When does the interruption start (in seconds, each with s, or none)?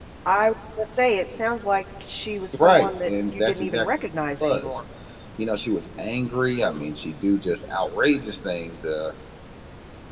2.6 s